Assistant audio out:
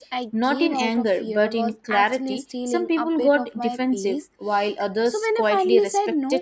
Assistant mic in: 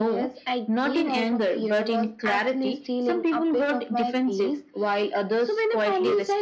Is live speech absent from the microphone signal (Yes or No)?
Yes